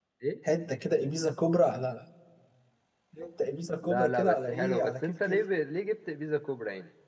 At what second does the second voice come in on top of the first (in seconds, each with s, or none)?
3.8 s